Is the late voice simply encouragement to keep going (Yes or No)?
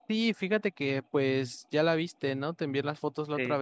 Yes